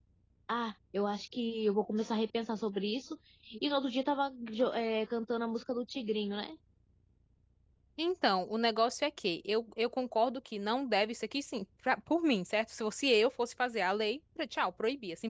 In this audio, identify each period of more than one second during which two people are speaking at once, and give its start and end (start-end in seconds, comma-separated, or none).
none